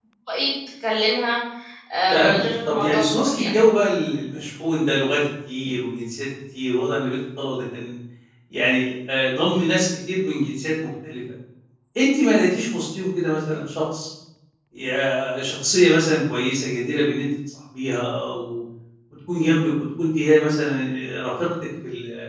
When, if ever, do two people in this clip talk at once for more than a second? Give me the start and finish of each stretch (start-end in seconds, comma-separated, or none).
2.1-3.5